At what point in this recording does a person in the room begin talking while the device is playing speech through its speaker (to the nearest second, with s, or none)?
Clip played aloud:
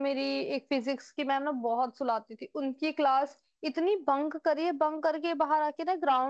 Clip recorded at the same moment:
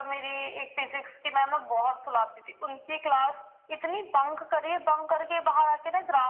none